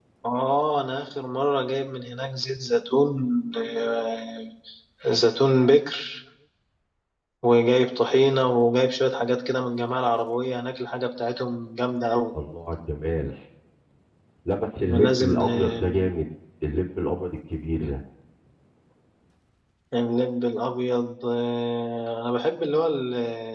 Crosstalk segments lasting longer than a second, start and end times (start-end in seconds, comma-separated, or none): 14.8-16.1